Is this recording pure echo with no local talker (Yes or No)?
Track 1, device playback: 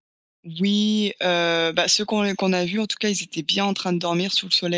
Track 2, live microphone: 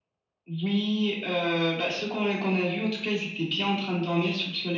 Yes